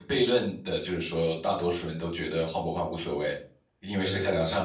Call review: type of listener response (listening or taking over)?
listening